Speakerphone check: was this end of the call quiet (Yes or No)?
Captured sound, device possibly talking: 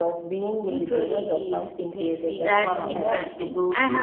No